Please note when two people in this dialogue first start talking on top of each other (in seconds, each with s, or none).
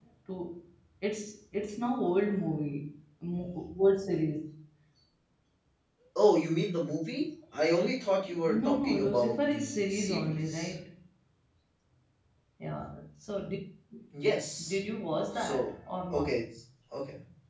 8.4 s